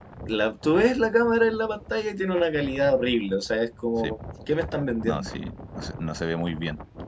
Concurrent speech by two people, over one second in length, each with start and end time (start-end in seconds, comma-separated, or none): none